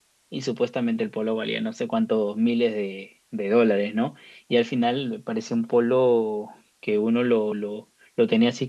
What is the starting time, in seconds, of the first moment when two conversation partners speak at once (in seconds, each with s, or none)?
none